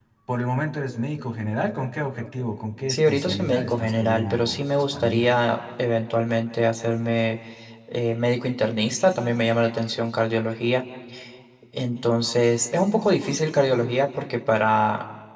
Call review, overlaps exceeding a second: present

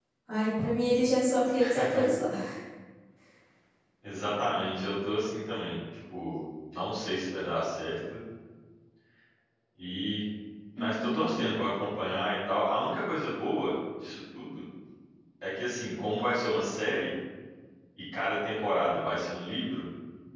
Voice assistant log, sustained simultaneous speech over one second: none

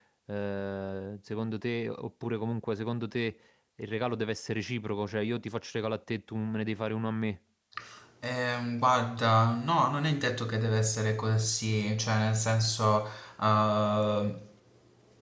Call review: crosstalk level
none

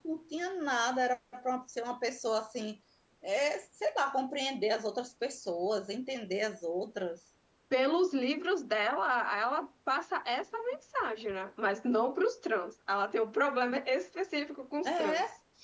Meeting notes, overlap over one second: none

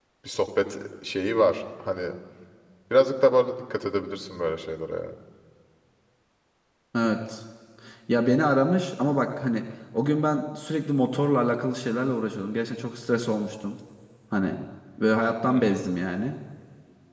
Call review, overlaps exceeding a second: none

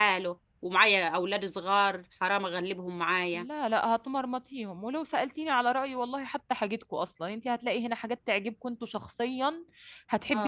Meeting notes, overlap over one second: none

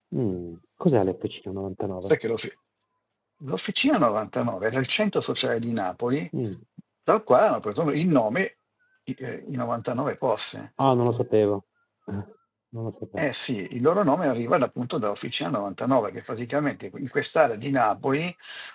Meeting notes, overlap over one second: none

